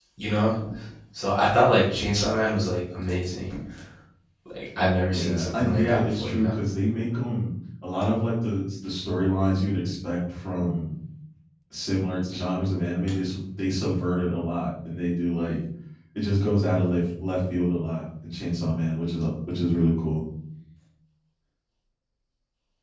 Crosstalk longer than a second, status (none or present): present